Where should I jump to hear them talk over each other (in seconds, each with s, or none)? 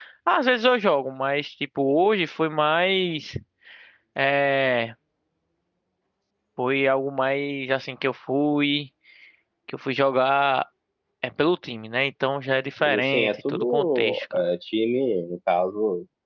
12.8 s